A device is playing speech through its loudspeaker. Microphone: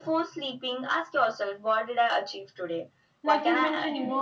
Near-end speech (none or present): present